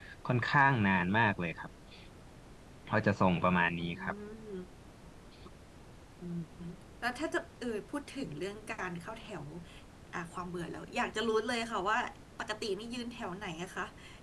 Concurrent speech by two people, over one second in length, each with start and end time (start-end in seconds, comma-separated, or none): none